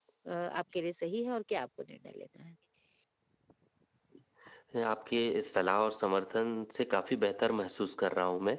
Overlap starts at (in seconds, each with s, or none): none